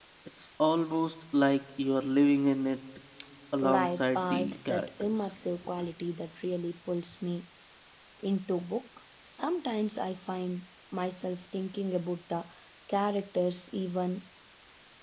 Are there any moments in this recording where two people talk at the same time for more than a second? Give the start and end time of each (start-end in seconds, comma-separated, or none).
3.6-5.3